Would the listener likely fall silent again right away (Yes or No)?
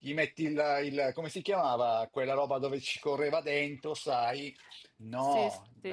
Yes